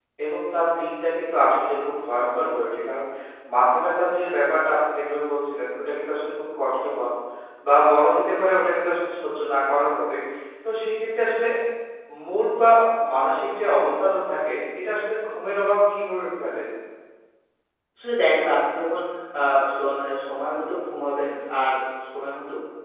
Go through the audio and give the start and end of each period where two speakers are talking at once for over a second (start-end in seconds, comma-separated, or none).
none